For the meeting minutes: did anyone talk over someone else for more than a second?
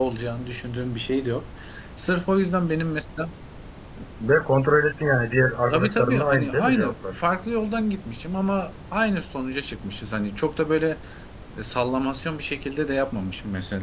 Yes, from 5.7 s

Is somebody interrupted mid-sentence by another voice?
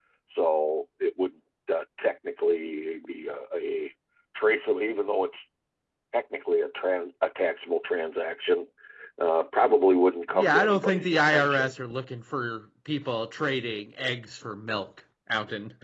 Yes, from 10.3 s

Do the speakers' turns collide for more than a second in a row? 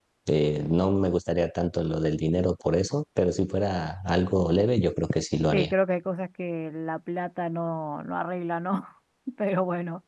No

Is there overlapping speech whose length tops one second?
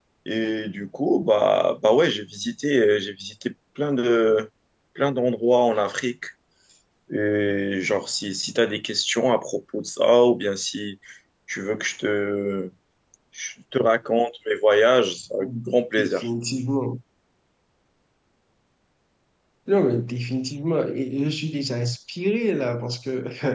No

